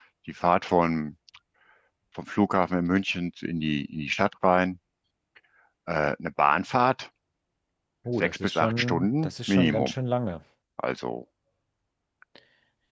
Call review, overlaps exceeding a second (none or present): present